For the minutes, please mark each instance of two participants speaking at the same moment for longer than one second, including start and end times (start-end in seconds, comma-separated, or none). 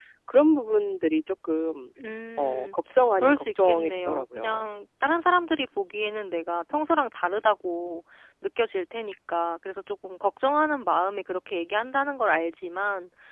3.2-4.6